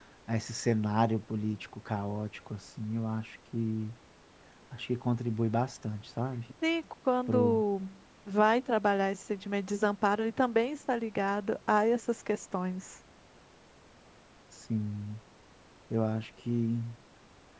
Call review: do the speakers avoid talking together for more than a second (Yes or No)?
Yes